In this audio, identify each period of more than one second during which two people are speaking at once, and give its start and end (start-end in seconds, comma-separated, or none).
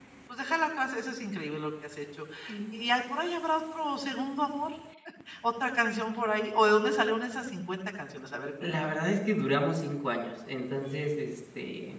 none